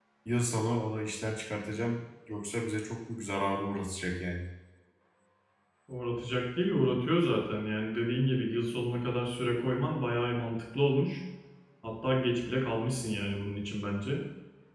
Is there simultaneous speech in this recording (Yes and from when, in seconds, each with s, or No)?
No